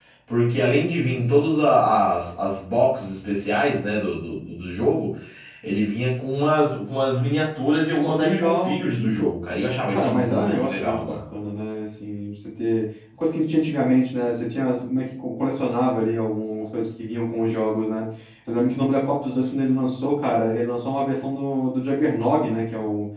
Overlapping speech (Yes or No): Yes